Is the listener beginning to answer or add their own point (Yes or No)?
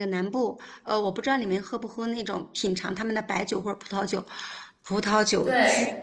No